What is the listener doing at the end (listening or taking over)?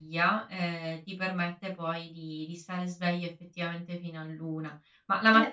taking over